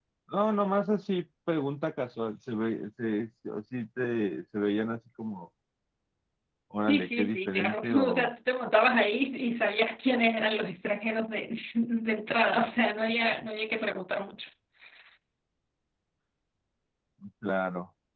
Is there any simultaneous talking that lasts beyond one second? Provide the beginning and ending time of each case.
6.9-8.3

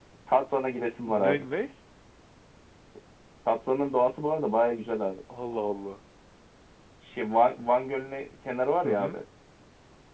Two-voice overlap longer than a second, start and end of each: none

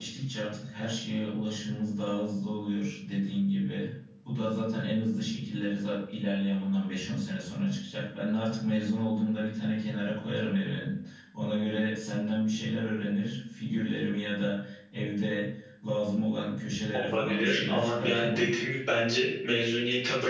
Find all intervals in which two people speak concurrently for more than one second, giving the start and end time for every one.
17.1-18.8

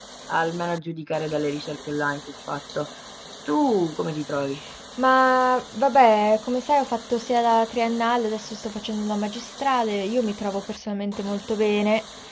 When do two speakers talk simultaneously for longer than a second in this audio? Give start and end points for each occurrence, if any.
none

